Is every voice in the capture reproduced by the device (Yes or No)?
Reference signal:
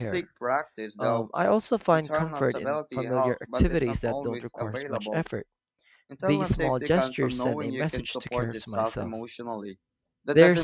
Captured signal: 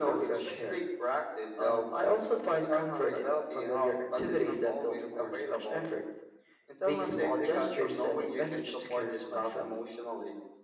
Yes